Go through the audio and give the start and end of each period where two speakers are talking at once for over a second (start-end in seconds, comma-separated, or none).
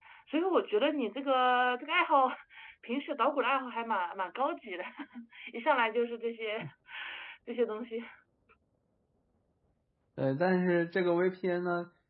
none